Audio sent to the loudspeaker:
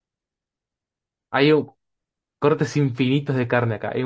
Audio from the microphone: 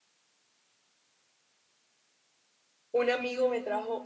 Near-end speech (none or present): present